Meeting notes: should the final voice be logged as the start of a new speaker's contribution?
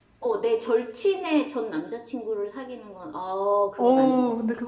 Yes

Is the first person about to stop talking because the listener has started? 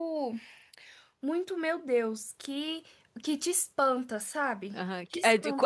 Yes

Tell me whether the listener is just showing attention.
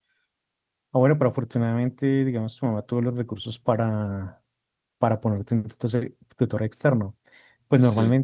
Yes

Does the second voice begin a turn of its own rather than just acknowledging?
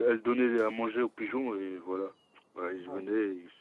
Yes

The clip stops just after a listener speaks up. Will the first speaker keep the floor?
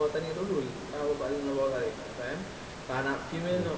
Yes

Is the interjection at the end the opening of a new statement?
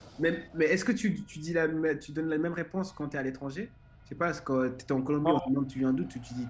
No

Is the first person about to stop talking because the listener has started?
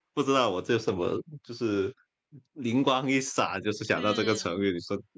No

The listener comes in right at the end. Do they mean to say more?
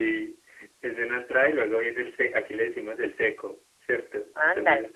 No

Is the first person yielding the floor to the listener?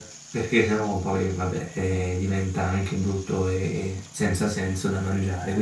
Yes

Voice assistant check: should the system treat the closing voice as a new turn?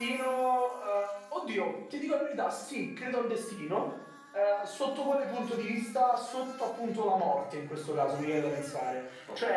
No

